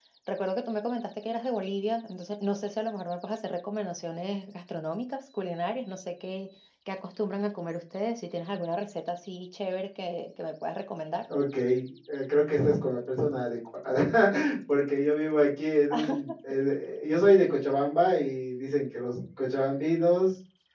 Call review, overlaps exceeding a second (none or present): none